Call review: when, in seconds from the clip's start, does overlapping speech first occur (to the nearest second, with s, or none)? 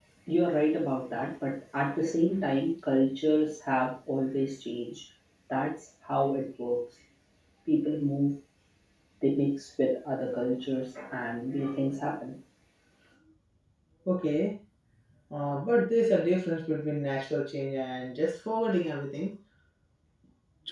none